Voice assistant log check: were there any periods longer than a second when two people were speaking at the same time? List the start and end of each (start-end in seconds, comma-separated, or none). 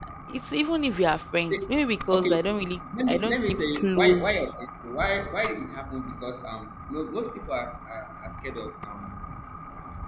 3.1-4.5